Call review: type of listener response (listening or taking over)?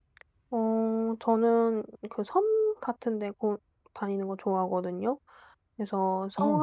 listening